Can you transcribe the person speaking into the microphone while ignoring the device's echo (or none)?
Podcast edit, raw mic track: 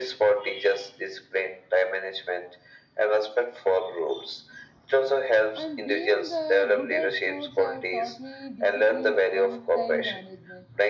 and being uh, good at sports have taught me discipline and time management